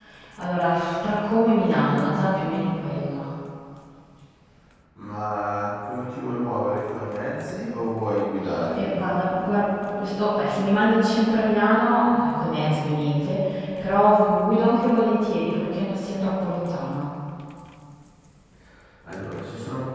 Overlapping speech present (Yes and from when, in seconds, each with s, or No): No